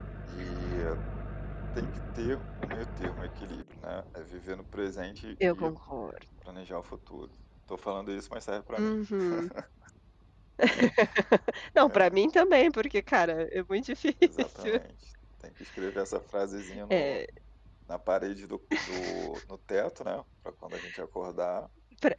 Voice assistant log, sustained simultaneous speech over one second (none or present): none